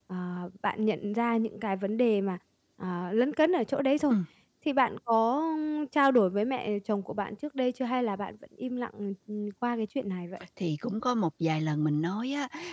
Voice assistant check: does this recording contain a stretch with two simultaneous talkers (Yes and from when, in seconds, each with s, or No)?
No